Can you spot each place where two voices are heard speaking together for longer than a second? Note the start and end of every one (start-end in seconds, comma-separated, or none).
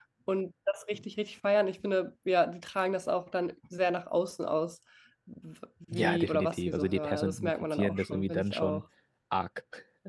5.9-8.8